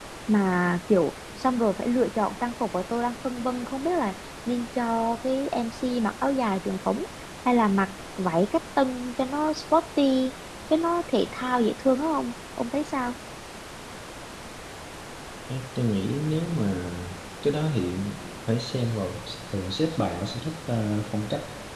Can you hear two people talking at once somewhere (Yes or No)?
No